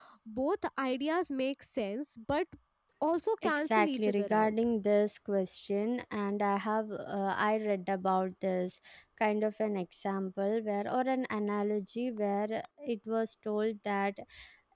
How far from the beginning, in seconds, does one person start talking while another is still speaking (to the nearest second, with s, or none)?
3 s